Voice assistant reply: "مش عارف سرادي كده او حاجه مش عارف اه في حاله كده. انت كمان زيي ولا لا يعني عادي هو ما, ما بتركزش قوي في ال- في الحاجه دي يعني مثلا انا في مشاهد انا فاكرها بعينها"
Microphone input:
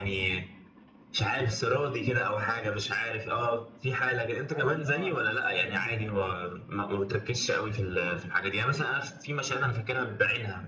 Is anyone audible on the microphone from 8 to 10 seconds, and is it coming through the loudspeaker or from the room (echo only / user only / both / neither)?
echo only